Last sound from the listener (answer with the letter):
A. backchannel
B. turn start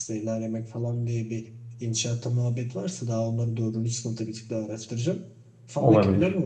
A